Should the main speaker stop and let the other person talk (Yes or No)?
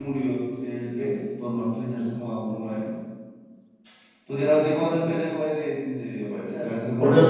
Yes